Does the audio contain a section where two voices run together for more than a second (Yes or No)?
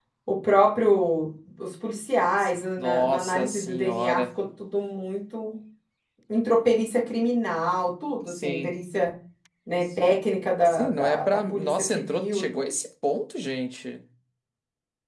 Yes